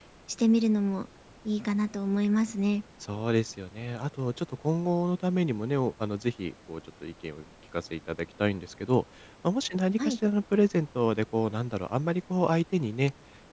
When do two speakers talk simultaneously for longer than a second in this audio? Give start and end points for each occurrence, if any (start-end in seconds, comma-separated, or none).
none